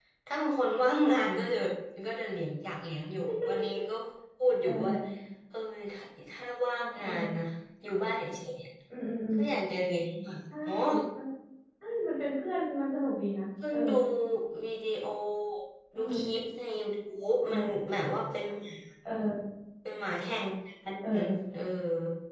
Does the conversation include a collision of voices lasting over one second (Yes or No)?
No